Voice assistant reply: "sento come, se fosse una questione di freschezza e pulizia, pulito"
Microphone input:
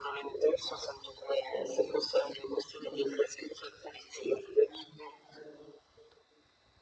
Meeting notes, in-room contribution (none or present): none